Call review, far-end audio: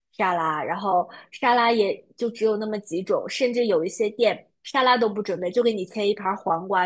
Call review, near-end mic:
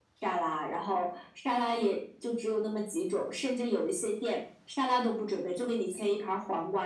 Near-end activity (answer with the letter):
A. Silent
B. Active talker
A